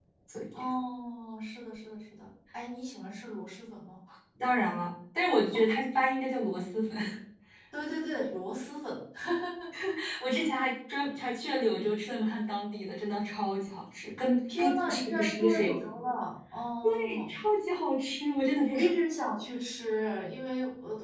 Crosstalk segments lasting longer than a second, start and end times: 14.6-15.9

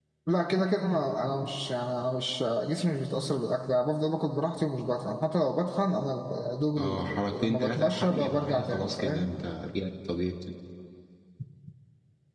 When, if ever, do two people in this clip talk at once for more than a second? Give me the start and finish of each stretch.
6.8-9.3

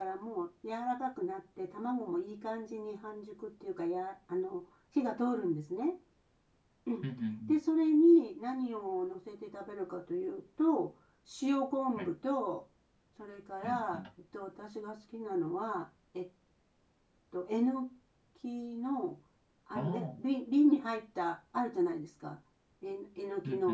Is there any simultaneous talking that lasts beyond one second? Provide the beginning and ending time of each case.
none

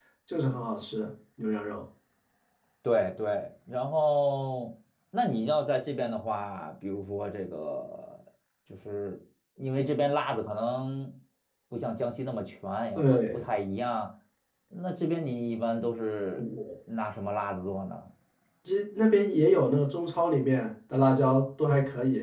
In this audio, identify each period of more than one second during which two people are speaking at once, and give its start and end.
none

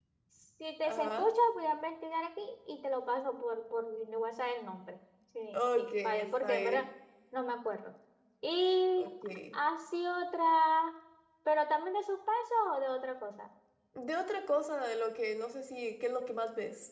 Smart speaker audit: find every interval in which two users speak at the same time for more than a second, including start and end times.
5.5-6.8

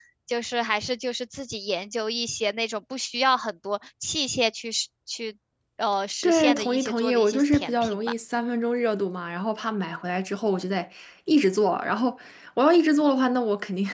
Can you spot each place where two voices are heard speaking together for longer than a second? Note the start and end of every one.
6.2-8.0

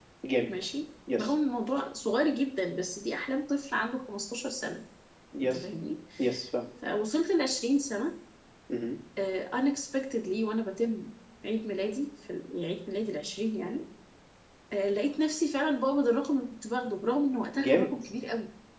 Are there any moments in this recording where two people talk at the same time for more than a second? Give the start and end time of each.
none

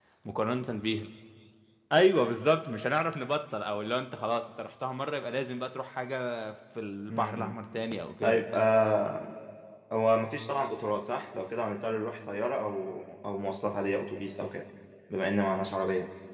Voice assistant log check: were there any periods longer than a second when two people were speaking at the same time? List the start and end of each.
none

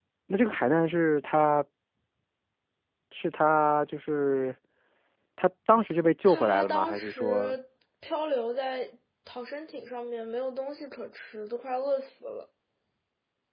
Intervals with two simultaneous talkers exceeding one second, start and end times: 6.3-7.6

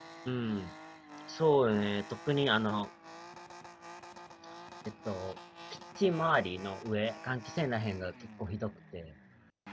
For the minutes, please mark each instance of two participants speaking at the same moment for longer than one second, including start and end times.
none

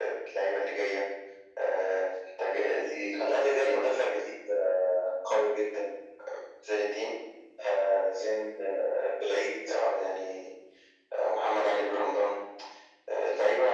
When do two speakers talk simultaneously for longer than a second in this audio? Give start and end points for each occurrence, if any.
none

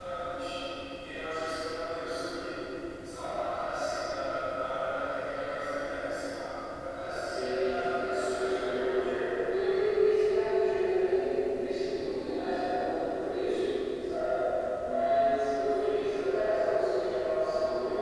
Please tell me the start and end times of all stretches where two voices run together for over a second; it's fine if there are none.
7.2-9.1

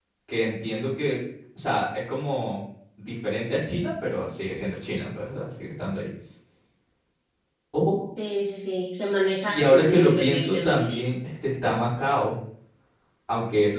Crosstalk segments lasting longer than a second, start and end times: 9.5-10.9

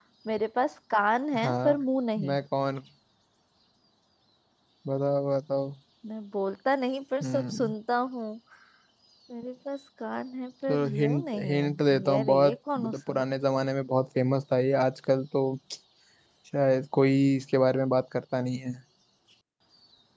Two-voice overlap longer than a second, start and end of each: 10.7-13.2

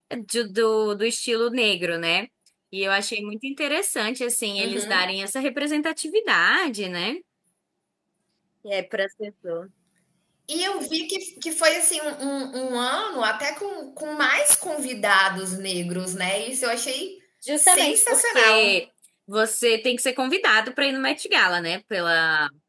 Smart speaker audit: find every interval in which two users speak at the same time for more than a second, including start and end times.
17.6-18.8

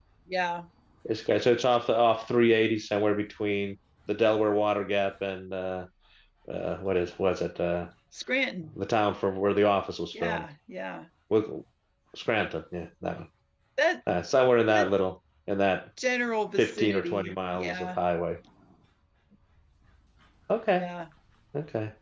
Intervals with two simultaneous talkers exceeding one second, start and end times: 16.6-18.0

